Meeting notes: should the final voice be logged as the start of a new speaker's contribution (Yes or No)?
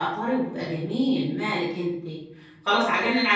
No